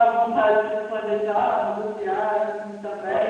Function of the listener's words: taking over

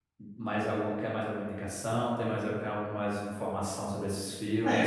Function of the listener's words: taking over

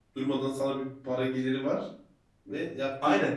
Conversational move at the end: taking over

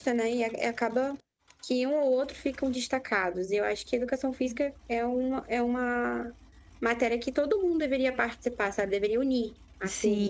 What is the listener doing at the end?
taking over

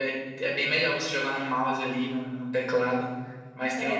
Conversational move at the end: taking over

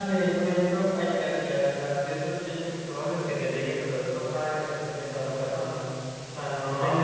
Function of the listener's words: taking over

